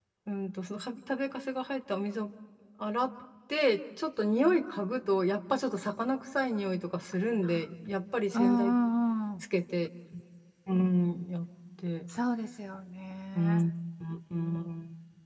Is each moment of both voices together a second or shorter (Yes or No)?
Yes